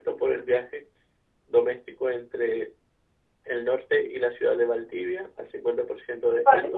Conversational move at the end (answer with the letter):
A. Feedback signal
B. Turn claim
A